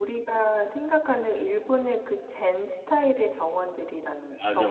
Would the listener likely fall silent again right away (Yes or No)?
No